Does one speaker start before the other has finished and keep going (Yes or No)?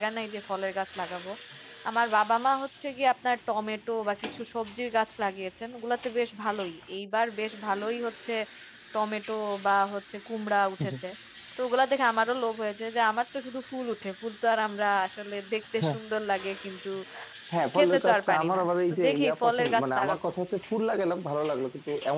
Yes